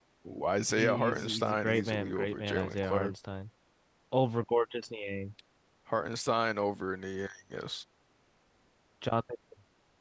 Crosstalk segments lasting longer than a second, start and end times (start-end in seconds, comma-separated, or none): 0.8-3.1